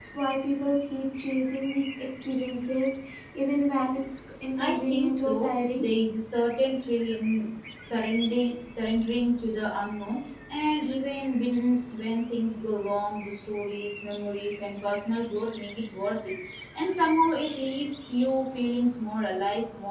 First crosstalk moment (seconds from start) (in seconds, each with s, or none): 4.6 s